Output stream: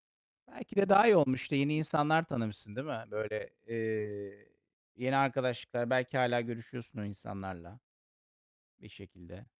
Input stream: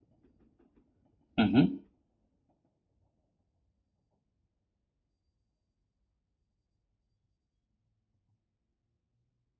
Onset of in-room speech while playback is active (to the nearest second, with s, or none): 1 s